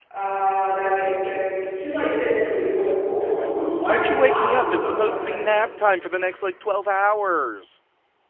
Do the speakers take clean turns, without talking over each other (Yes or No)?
No